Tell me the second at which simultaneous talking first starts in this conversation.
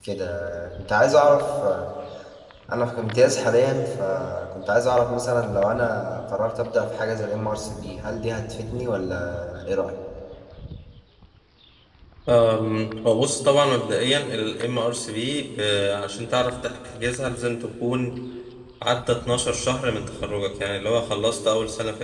none

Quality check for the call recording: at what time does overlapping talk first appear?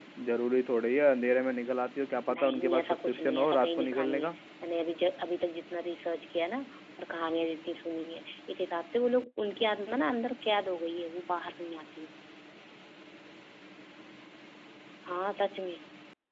2 s

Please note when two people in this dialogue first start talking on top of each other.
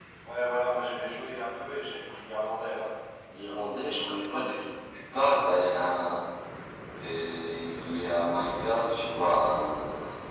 none

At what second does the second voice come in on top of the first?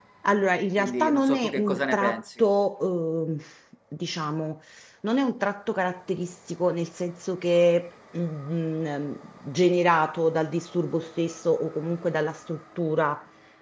1 s

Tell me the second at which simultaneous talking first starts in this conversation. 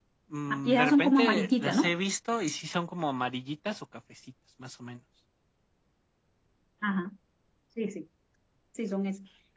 1 s

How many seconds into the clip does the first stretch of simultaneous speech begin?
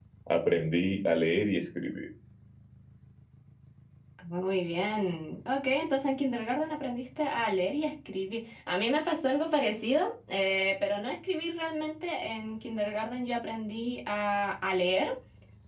none

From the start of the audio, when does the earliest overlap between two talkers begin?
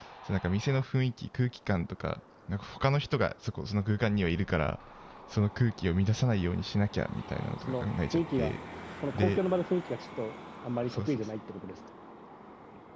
7 s

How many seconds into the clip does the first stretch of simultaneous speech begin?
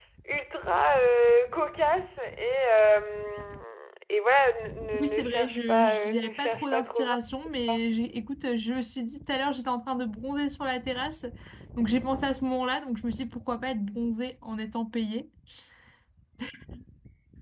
5 s

